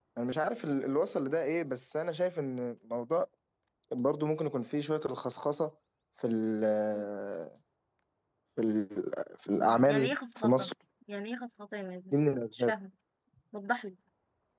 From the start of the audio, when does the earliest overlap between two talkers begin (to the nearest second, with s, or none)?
9 s